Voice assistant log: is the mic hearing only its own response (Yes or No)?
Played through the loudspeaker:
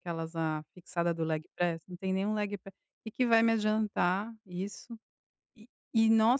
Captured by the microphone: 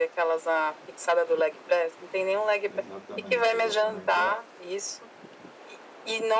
No